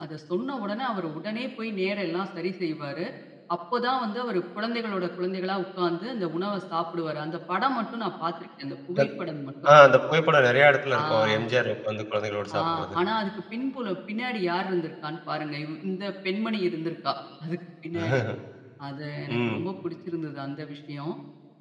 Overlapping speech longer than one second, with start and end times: none

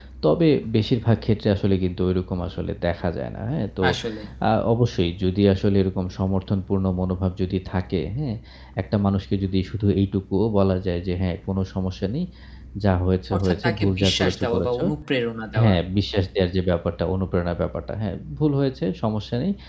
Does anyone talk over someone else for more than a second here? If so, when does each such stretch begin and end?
13.3-14.8

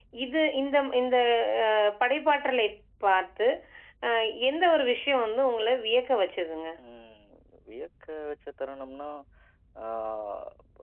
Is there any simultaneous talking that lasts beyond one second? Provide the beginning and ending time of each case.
none

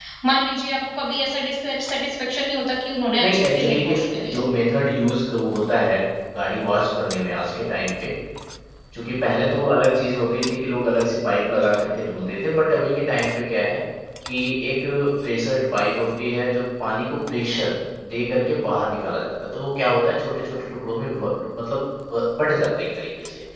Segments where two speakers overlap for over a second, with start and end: 3.2-4.4

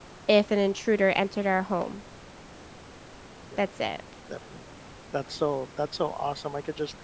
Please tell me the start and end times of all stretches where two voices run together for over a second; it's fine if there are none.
none

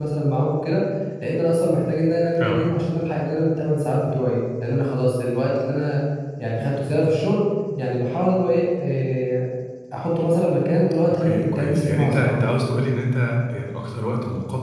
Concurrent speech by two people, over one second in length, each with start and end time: 11.1-12.5

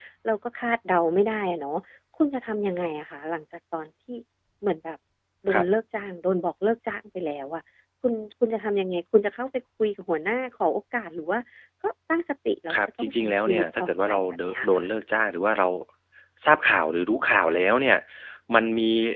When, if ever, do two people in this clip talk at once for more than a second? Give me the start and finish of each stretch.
12.7-14.8

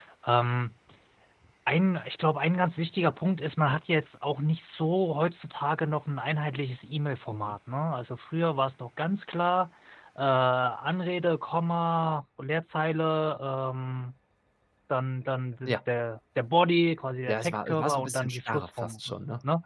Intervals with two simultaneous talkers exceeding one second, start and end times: 17.3-19.0

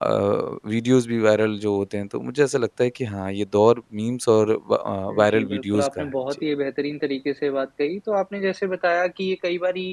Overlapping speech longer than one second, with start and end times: 5.1-6.4

